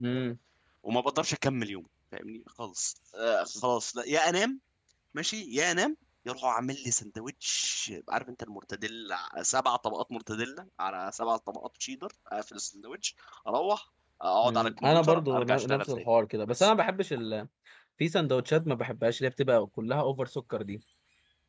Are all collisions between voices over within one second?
No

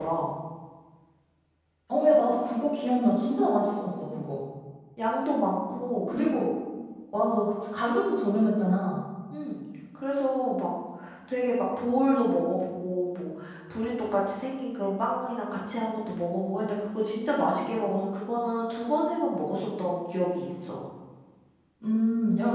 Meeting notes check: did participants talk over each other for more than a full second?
No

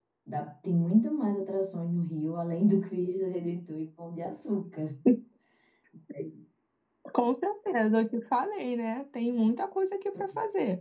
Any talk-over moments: No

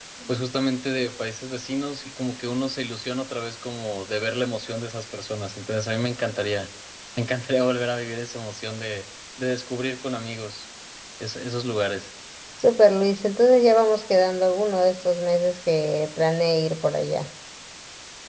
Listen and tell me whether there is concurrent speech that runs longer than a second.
No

